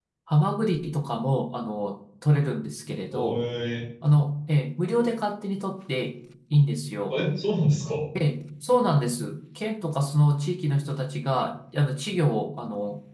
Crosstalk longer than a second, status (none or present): none